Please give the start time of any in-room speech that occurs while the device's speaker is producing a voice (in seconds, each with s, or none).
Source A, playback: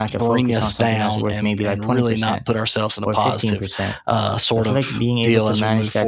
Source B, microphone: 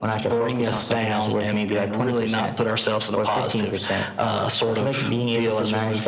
none